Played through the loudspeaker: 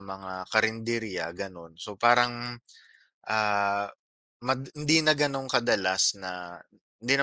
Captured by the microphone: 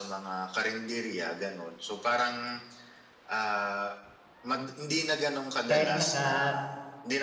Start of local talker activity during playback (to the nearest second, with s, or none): 6 s